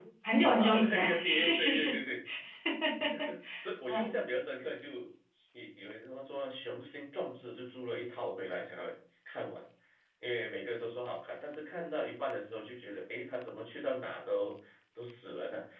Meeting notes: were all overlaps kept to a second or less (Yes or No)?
No